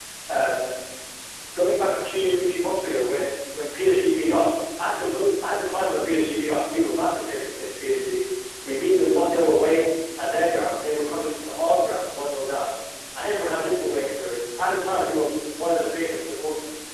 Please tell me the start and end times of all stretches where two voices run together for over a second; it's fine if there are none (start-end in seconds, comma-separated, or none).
none